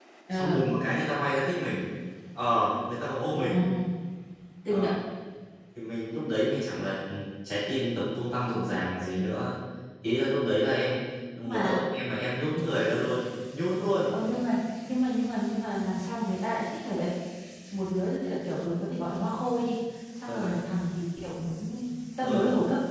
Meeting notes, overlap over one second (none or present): none